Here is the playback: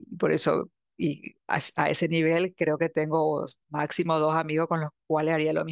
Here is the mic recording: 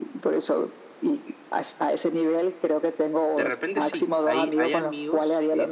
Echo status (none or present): present